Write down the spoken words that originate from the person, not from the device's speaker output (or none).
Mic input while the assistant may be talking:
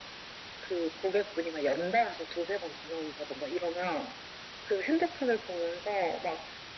none